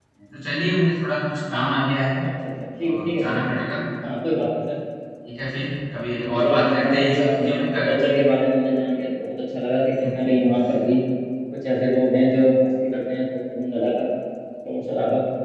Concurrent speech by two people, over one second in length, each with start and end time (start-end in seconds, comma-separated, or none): 6.3-8.0